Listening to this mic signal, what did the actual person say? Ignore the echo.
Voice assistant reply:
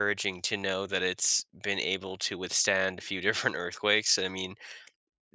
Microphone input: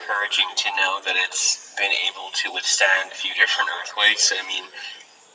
none

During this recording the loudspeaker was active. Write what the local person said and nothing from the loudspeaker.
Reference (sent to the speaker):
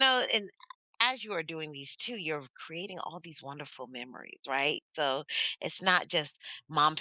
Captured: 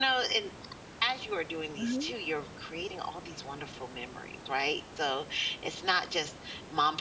Mhm,

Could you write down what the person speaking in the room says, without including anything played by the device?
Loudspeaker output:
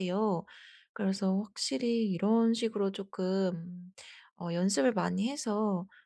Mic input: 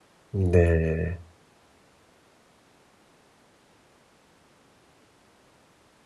네.

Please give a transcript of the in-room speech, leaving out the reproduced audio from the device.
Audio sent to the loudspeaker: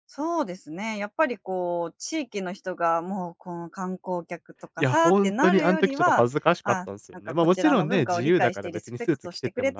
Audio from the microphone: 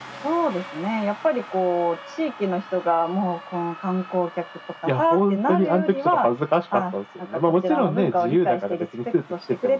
none

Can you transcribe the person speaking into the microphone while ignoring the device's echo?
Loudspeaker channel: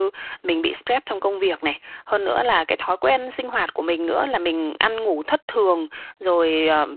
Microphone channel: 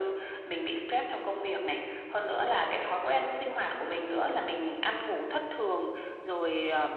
none

